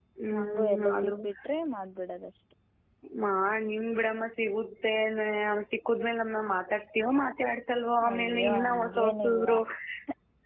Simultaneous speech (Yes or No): Yes